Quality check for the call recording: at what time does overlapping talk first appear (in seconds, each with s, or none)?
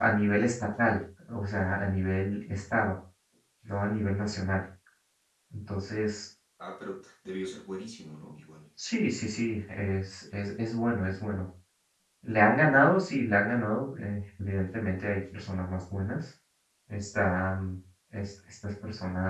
none